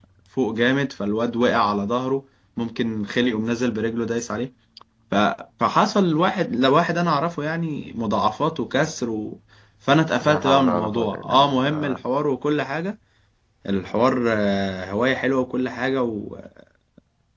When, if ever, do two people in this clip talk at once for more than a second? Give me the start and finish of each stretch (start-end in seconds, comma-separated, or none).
10.2-12.0